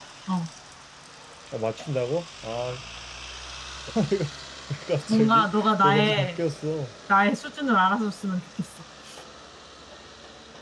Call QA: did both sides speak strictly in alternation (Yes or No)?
No